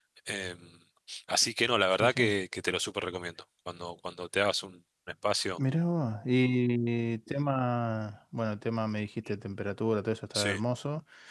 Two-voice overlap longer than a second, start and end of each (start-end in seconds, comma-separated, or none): none